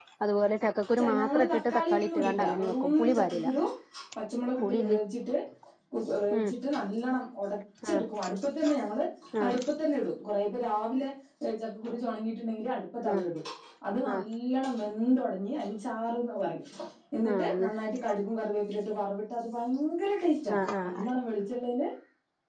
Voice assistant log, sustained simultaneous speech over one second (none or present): present